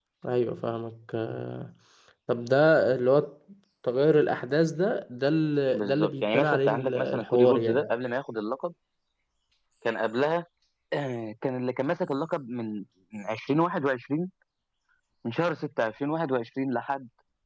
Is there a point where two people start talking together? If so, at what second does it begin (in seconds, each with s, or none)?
5.7 s